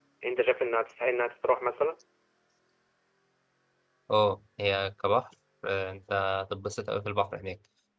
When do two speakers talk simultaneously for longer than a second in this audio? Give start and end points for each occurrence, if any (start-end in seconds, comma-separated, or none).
none